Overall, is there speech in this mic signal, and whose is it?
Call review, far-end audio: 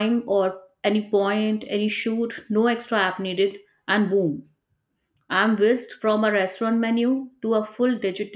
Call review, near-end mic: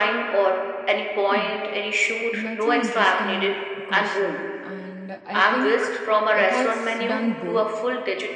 both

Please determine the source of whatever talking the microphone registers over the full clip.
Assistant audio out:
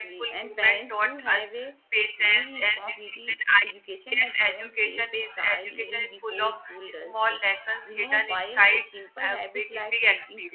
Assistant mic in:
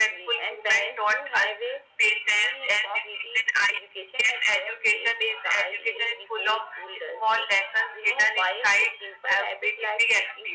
echo only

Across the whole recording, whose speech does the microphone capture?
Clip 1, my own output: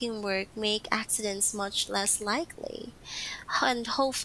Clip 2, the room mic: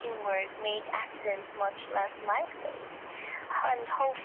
echo only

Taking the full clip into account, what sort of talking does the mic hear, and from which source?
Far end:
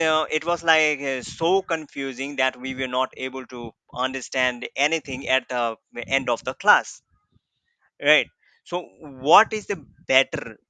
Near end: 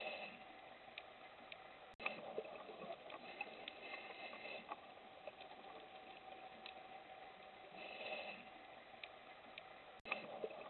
neither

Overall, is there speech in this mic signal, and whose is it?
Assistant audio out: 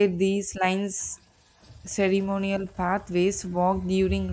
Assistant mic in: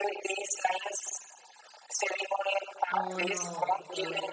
both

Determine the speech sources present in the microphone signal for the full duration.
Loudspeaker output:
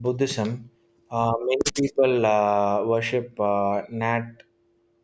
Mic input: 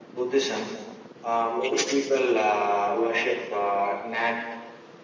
echo only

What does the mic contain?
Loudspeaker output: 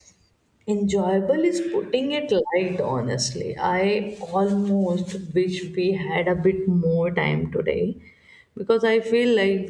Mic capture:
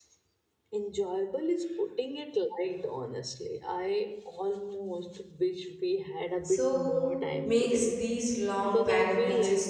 both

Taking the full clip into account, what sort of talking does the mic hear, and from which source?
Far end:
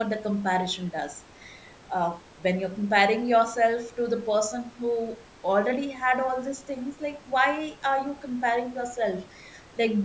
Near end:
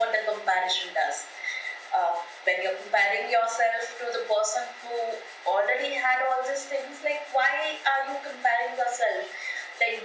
echo only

